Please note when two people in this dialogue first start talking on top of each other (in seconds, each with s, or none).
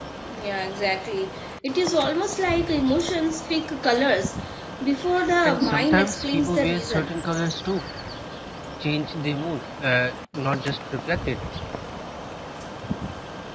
5.5 s